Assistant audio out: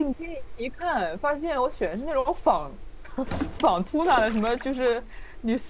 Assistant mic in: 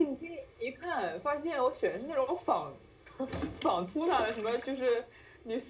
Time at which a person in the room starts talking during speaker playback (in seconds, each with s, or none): none